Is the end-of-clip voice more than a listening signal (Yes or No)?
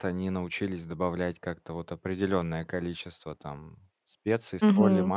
No